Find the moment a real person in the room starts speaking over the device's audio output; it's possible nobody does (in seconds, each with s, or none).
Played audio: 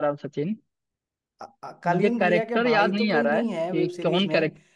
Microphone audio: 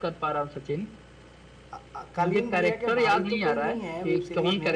none